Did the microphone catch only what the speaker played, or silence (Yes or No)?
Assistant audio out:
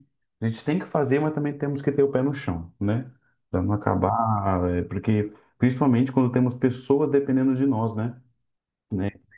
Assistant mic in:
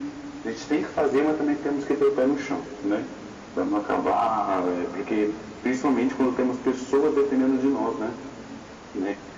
Yes